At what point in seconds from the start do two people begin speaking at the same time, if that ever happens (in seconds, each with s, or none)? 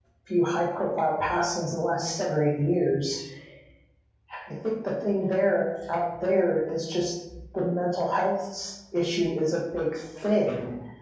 none